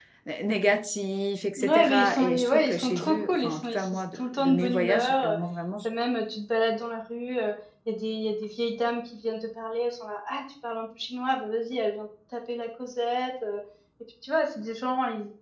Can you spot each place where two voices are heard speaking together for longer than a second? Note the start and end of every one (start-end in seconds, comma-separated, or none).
1.6-5.3